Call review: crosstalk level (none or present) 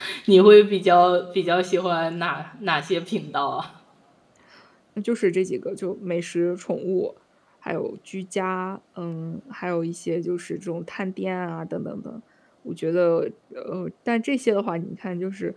none